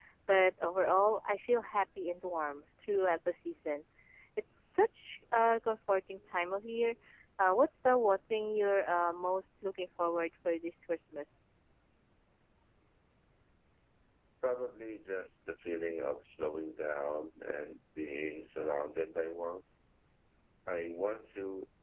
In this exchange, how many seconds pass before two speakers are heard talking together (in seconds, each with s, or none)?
none